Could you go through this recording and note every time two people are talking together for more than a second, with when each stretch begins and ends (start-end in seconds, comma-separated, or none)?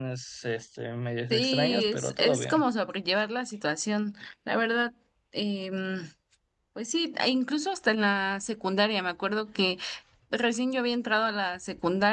1.3-2.6